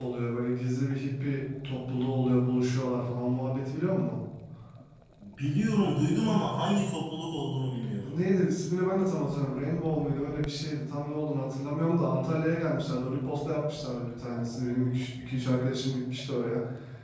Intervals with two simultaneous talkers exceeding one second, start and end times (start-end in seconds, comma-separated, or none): none